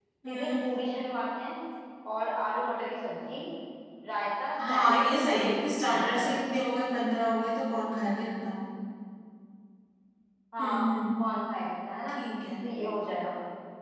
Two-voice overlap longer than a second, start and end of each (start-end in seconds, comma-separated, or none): 4.7-6.3